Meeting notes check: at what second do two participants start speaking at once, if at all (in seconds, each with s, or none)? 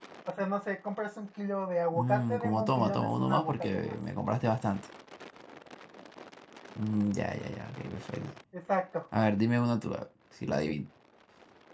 1.9 s